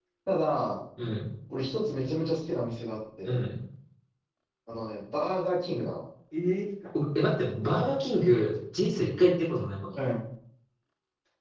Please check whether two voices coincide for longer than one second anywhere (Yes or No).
No